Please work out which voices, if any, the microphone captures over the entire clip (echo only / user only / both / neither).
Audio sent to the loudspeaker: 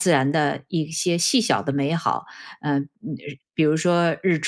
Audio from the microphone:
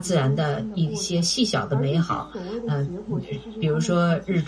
both